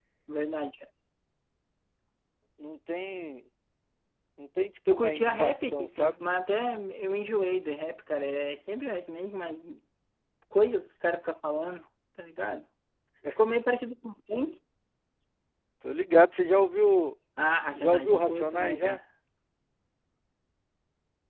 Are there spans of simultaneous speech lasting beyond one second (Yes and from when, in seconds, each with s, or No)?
Yes, from 4.9 s